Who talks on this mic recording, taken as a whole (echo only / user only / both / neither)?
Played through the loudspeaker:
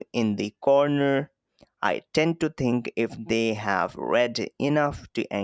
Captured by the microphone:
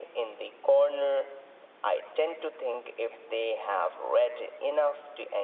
echo only